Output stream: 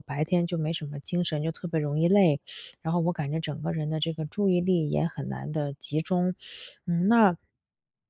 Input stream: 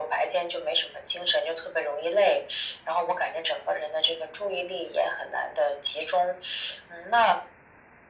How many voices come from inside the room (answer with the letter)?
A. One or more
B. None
B